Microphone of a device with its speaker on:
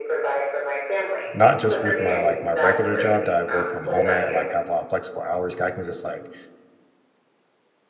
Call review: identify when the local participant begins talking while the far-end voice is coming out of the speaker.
1 s

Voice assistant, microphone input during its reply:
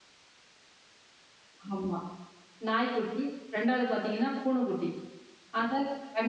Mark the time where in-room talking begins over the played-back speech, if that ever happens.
2 s

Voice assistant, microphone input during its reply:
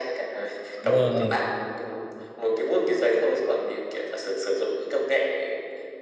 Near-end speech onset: 1 s

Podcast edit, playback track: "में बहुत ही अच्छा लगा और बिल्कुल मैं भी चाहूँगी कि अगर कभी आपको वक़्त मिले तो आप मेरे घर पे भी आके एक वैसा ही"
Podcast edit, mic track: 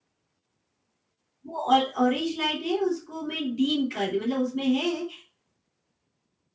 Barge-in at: 1 s

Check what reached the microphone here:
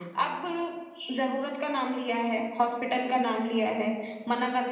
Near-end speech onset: none

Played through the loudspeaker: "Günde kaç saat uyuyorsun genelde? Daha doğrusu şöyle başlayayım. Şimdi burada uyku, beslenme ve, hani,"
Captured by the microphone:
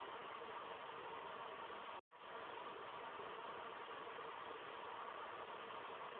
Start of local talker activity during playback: none

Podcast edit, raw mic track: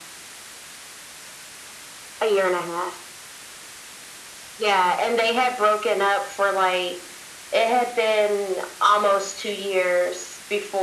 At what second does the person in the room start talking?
none

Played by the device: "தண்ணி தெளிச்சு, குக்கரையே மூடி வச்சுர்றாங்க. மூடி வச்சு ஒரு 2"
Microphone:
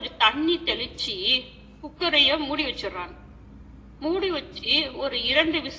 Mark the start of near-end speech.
none

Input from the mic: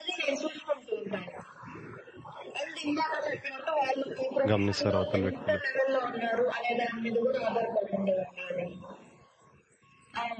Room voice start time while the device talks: 5 s

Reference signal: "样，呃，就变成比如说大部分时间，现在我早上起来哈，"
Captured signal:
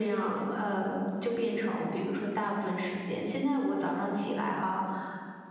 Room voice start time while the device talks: none

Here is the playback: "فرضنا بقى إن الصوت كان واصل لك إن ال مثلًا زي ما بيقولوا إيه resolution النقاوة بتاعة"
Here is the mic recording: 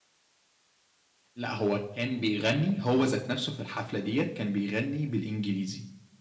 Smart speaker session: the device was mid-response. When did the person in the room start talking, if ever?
1 s

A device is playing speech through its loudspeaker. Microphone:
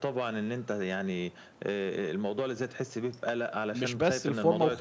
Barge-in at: 4 s

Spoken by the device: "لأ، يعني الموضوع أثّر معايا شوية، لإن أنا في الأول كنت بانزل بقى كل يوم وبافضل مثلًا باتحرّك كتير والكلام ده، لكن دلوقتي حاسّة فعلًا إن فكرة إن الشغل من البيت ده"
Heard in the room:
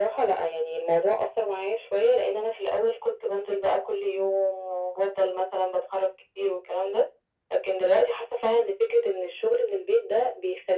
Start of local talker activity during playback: none

